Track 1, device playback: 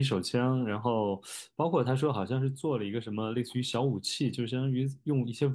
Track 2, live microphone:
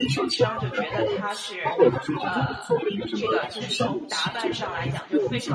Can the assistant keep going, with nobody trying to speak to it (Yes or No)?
No